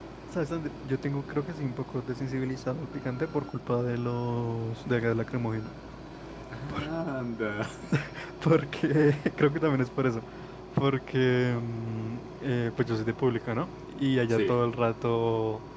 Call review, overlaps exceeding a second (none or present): none